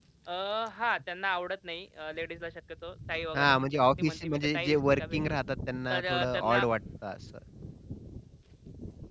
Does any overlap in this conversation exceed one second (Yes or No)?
Yes